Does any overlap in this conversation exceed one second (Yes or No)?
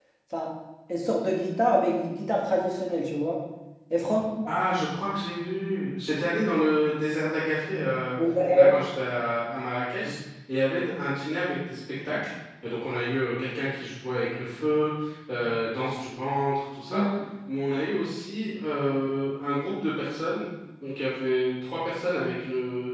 No